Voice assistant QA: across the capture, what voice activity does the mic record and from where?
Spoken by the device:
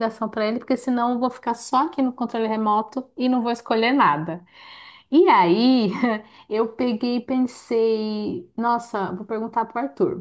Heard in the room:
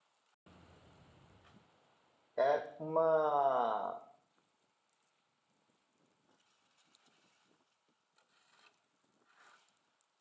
user only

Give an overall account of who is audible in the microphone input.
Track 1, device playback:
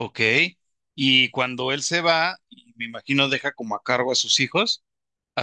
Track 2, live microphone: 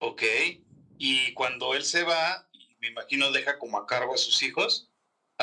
echo only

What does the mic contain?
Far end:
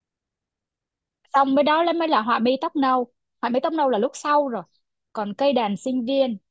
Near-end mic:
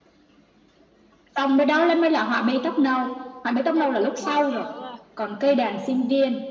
both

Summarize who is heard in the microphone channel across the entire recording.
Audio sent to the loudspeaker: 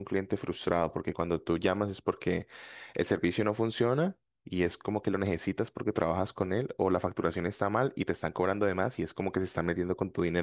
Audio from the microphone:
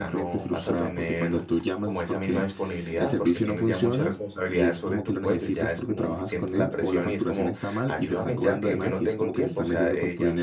both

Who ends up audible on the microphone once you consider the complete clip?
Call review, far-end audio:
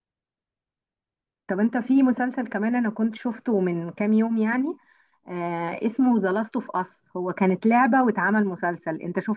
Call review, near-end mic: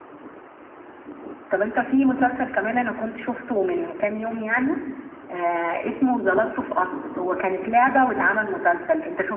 echo only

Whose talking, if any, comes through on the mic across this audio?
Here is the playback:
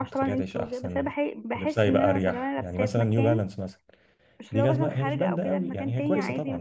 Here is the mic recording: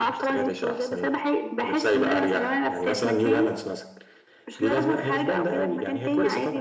echo only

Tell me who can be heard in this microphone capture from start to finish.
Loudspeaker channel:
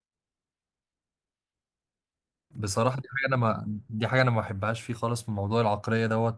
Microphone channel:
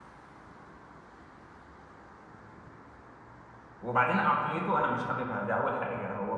user only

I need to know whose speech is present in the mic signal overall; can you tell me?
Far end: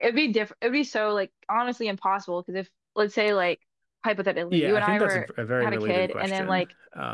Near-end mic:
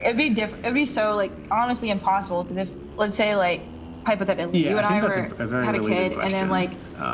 echo only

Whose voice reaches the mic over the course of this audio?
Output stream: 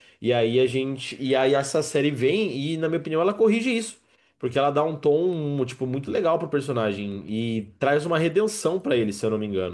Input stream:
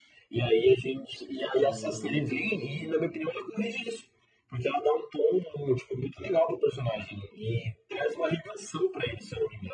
both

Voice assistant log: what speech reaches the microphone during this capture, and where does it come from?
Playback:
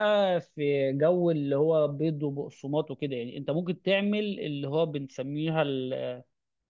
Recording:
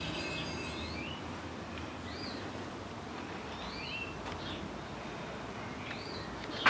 neither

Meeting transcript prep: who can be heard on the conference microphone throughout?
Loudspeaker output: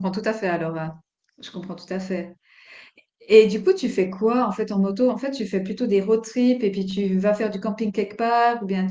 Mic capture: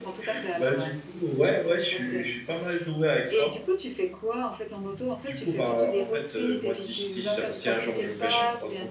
both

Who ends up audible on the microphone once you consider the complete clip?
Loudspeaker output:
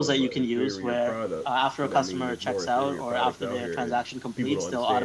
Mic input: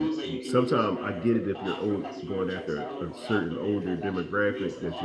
both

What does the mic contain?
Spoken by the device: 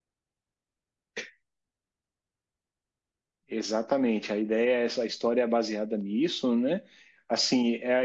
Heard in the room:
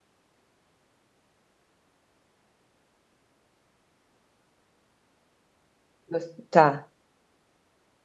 user only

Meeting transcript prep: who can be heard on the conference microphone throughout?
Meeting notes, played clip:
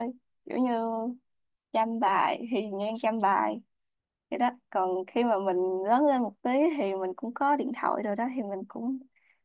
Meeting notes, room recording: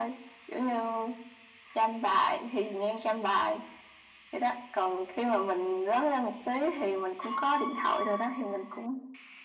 echo only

